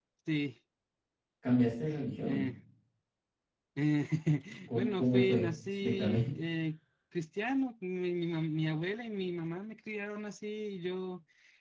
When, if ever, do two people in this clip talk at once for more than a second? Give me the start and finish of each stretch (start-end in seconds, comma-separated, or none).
4.7-6.2